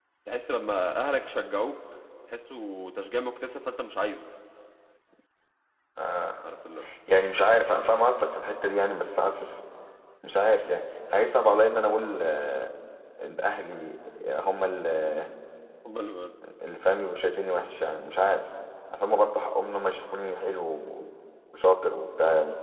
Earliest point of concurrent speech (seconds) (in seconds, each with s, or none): none